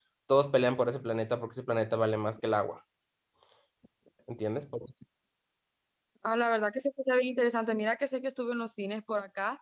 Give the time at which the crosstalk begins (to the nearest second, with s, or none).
none